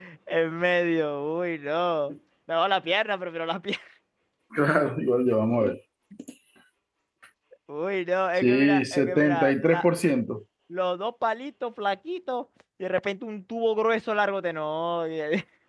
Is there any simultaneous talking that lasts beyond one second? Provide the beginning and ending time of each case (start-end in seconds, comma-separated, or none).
8.4-9.8